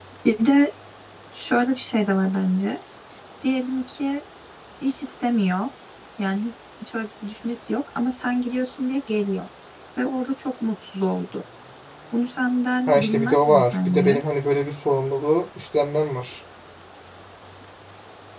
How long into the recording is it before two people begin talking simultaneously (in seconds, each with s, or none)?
12.9 s